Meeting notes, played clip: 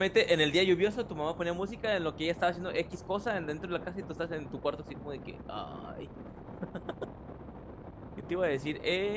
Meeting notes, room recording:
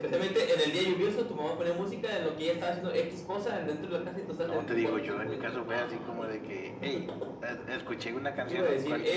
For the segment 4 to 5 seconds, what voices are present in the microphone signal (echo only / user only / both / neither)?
both